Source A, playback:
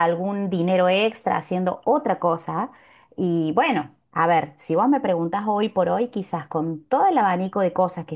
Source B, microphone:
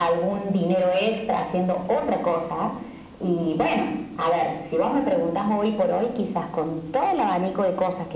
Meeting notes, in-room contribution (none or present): none